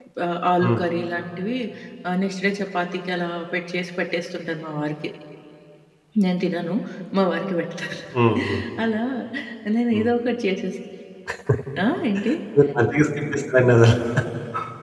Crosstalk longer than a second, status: none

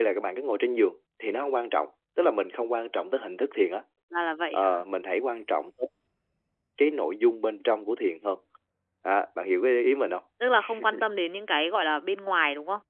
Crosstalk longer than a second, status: none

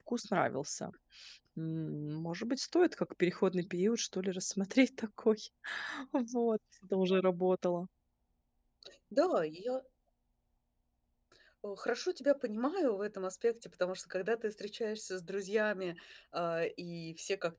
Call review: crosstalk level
none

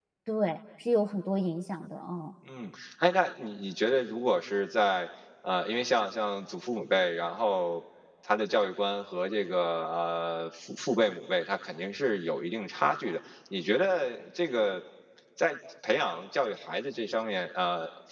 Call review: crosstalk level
none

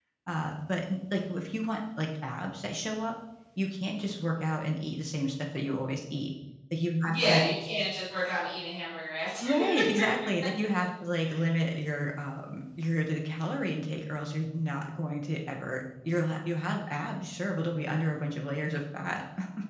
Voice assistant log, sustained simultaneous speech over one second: none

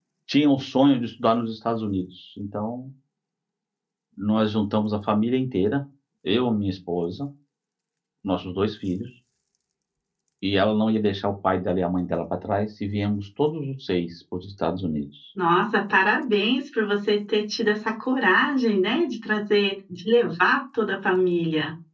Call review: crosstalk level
none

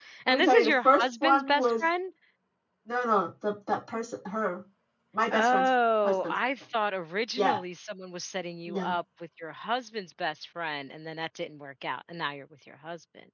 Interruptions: present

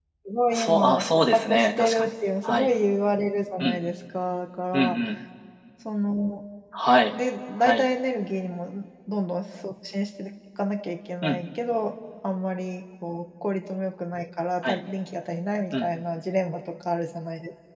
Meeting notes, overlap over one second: present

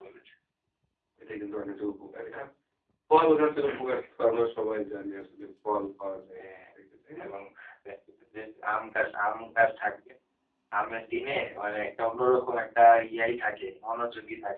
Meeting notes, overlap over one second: none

